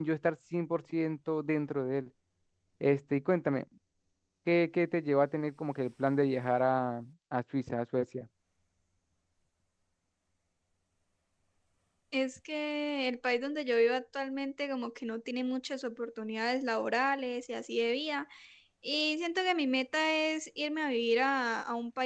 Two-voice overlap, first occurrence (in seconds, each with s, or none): none